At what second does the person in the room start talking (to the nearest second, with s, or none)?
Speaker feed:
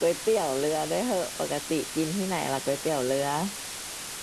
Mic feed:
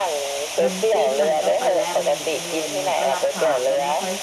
1 s